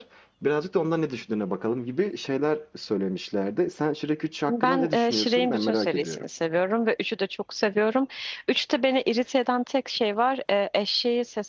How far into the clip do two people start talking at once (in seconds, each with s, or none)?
4.5 s